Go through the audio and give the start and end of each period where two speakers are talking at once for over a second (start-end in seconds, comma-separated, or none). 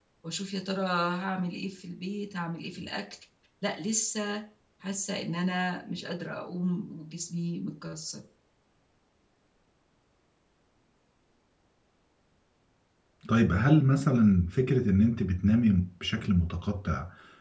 none